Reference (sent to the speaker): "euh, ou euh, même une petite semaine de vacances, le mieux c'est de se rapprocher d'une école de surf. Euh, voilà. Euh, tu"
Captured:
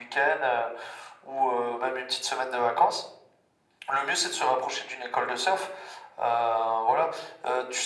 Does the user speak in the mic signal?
No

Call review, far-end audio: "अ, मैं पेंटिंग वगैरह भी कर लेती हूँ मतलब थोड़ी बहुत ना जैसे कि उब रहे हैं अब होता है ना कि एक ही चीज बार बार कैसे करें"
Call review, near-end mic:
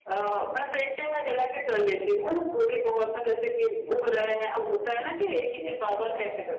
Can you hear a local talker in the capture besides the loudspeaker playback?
Yes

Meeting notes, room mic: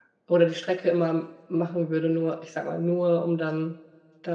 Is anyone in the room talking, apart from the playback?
Yes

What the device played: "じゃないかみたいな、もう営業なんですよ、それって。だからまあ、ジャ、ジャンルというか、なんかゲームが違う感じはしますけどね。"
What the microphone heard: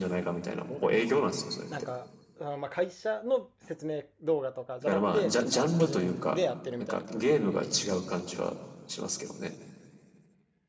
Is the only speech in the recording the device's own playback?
No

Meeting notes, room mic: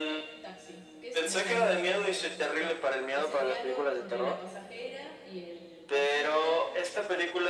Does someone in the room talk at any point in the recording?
Yes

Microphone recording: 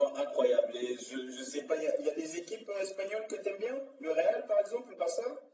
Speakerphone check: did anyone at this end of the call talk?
No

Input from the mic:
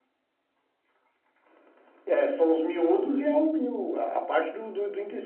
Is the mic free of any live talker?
Yes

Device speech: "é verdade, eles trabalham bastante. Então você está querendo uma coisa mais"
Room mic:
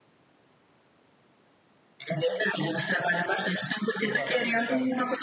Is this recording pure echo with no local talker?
No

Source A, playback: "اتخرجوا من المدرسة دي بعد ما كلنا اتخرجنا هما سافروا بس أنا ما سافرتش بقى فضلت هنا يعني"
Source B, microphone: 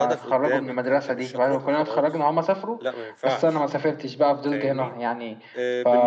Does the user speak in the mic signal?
Yes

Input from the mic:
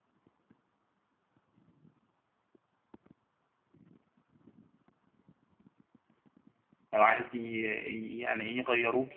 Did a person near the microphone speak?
Yes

